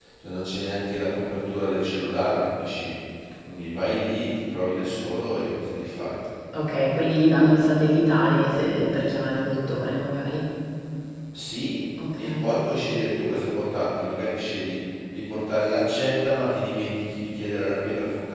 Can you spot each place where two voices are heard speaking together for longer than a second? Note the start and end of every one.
none

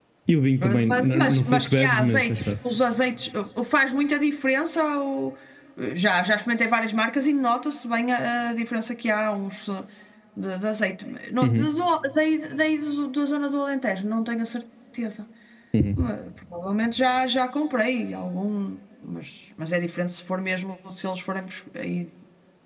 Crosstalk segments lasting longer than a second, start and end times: 0.6-2.5

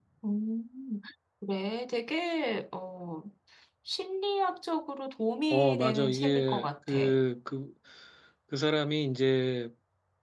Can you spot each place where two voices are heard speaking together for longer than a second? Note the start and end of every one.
5.5-7.0

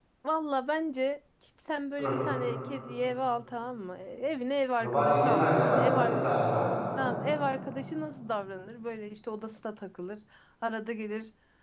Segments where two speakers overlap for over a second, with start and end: 4.8-6.2

